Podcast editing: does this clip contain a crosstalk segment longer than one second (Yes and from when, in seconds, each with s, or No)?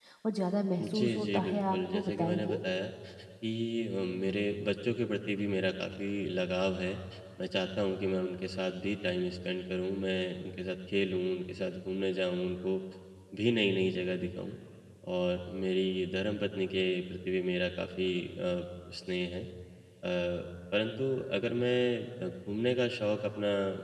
Yes, from 0.8 s